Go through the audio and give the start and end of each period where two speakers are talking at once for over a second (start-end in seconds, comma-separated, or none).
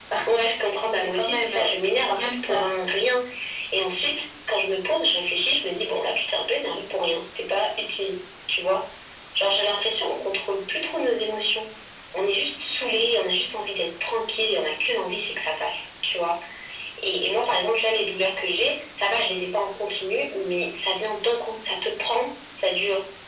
1.2-2.6